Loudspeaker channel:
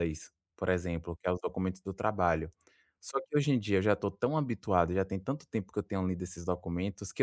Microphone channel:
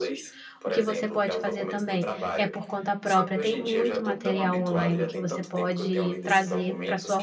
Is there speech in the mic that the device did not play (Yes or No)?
Yes